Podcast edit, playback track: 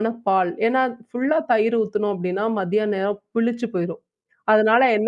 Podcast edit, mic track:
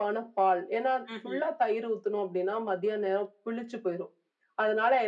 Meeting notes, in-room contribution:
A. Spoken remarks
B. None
A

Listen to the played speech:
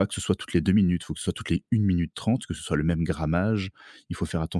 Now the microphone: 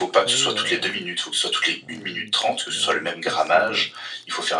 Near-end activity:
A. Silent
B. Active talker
B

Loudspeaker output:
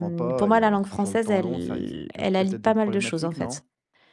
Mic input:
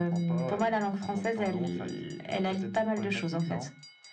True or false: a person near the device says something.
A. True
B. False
B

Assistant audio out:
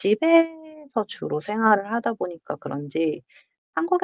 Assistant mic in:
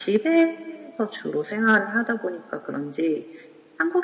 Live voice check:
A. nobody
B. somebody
A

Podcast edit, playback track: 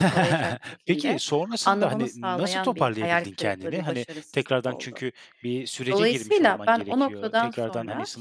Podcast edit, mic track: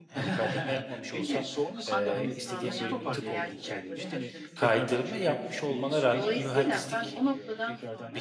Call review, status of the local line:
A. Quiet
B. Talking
B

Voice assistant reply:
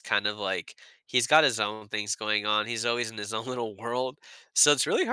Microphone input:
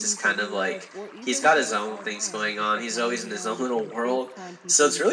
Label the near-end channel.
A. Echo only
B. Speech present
B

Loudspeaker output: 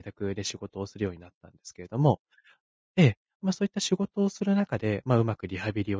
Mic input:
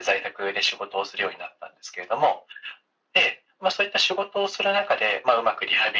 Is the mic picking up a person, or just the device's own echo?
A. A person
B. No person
B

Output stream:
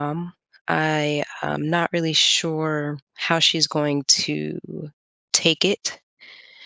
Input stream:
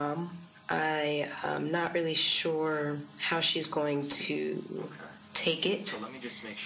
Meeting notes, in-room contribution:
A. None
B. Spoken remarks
B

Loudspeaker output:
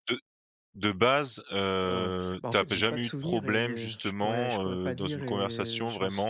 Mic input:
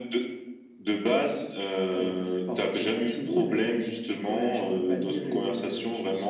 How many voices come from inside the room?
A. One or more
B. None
B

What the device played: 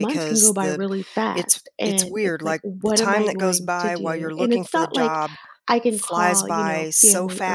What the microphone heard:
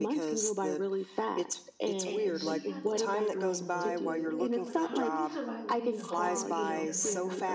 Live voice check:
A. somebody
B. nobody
A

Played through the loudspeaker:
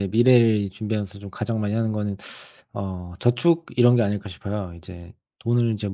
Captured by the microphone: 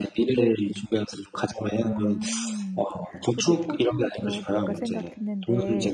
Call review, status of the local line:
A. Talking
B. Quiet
A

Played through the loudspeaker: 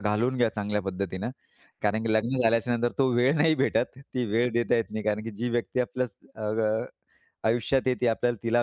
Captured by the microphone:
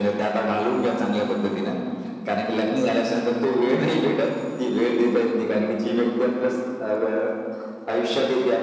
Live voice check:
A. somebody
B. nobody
B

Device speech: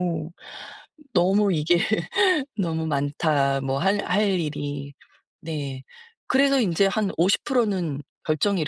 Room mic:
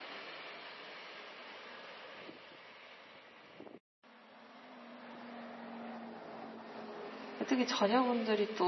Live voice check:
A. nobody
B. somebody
B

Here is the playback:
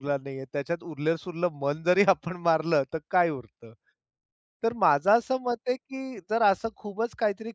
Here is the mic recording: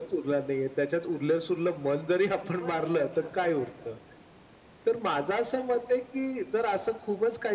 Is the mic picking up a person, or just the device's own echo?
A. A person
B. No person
A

